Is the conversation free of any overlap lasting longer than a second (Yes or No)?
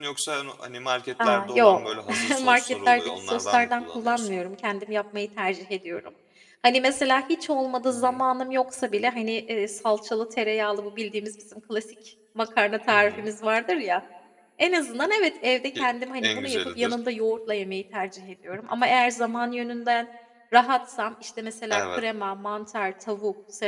No